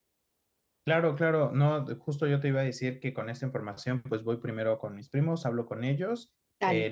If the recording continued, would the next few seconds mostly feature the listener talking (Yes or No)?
No